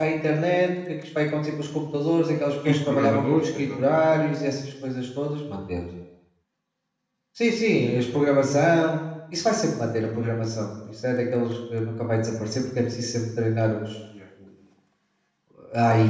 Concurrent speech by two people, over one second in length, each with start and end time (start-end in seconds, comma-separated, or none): 2.6-4.1